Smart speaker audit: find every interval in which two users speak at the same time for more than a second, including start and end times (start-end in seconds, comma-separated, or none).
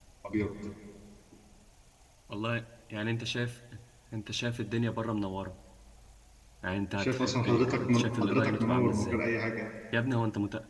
7.0-9.2